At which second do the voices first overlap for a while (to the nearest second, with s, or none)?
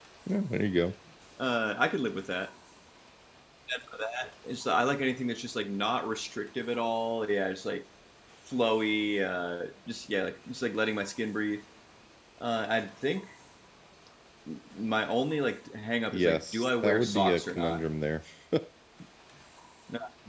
16 s